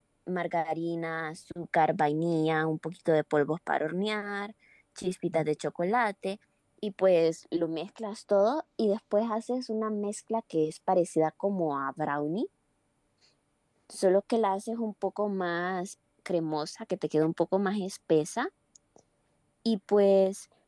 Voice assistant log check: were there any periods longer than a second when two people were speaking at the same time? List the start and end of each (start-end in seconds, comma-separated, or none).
none